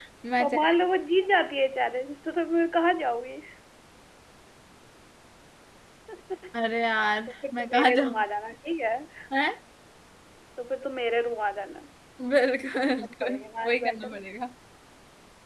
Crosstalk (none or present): present